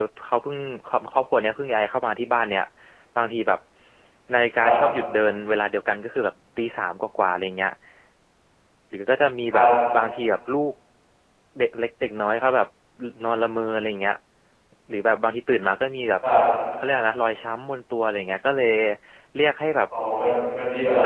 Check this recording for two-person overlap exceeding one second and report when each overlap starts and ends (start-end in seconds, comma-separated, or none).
none